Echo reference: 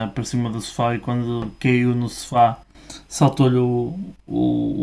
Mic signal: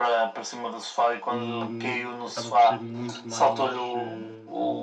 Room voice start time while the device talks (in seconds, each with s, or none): 1.3 s